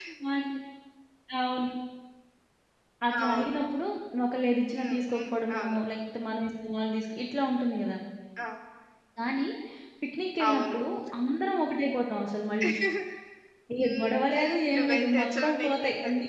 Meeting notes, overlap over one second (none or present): present